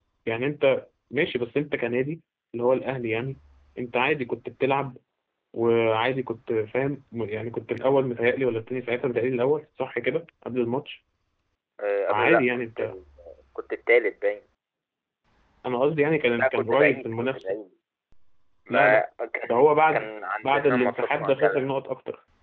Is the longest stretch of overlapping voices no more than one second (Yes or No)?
No